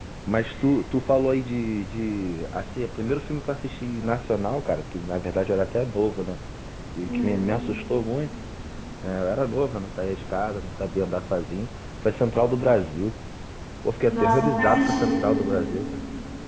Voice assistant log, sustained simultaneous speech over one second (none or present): present